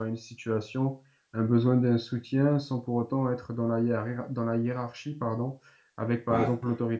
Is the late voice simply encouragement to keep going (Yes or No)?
Yes